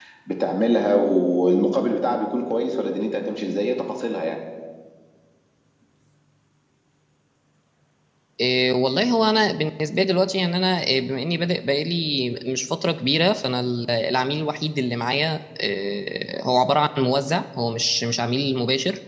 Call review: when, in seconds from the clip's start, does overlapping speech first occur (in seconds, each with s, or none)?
none